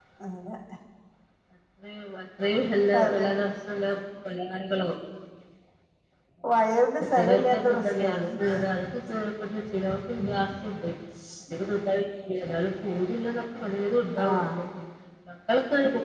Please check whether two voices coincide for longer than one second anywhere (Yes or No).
Yes